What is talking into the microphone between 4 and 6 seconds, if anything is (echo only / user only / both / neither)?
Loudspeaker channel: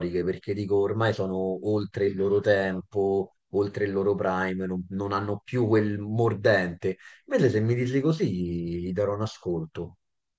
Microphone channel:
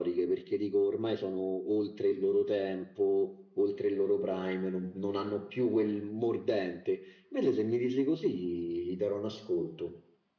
echo only